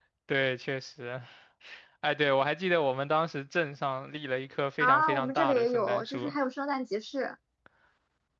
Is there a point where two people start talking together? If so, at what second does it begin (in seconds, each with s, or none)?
4.8 s